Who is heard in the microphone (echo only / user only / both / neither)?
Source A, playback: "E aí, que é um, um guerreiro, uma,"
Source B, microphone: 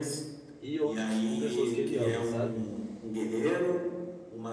both